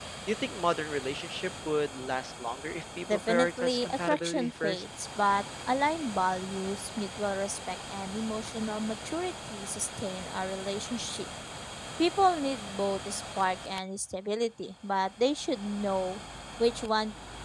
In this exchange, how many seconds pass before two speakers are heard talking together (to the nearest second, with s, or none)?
3 s